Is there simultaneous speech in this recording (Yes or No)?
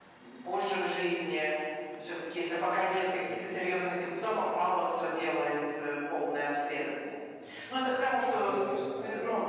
Yes